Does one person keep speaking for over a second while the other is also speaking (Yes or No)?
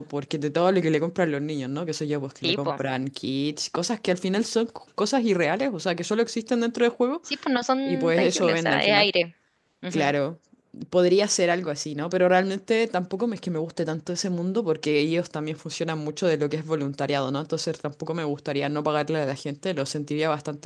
Yes